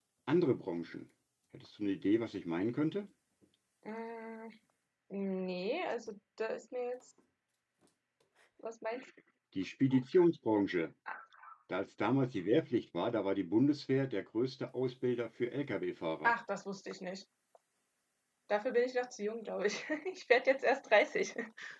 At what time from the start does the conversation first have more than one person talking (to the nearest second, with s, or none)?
none